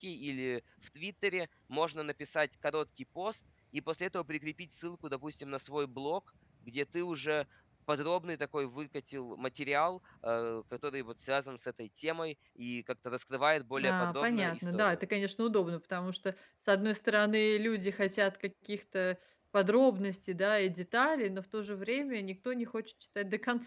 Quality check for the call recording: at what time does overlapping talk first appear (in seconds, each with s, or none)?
13.8 s